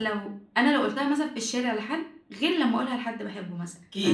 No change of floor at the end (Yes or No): No